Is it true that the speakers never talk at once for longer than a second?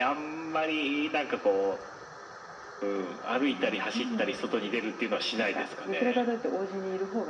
No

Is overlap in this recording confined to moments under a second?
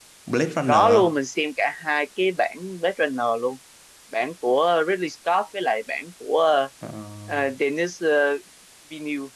Yes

